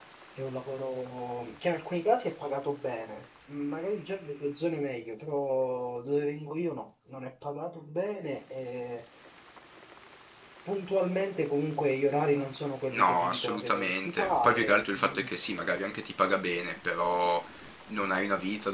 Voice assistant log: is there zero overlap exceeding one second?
No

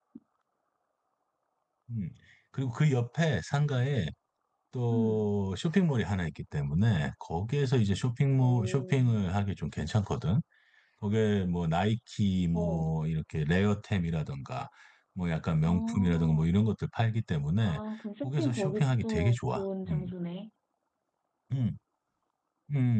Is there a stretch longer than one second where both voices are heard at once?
Yes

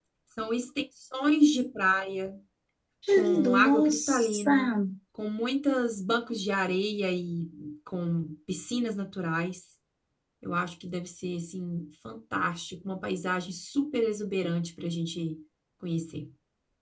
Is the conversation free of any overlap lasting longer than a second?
No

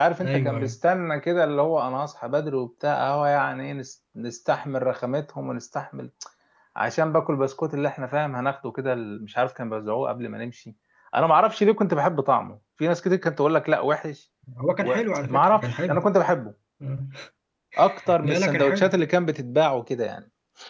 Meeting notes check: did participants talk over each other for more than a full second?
Yes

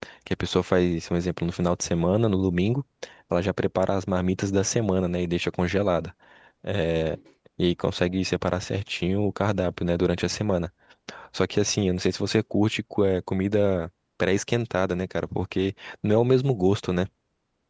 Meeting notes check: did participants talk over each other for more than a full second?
No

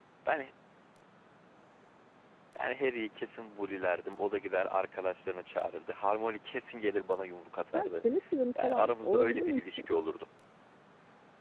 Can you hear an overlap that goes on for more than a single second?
Yes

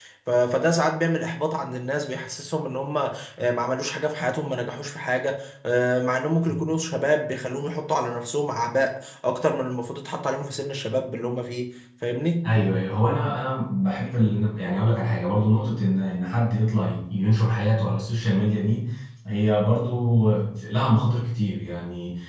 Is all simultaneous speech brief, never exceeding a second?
Yes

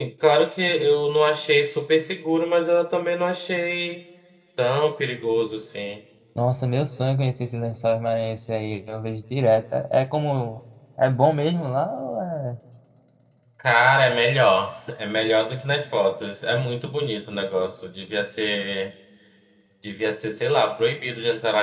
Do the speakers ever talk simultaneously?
No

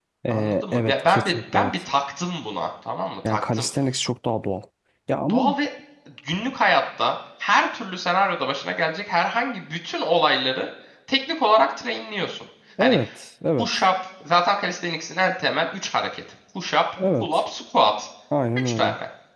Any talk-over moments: Yes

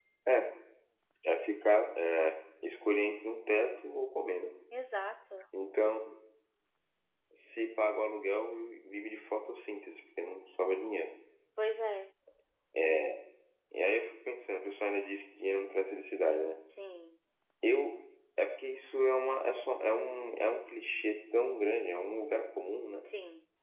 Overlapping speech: No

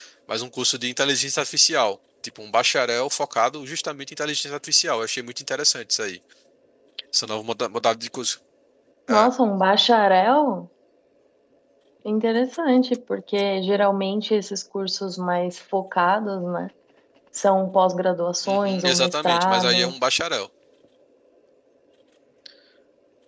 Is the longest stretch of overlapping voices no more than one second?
No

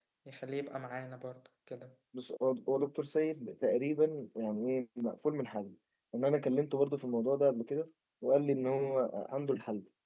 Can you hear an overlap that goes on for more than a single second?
No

